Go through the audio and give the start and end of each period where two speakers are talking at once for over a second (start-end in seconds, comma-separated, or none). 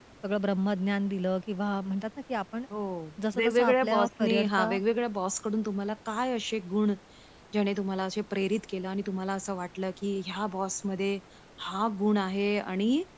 3.4-4.7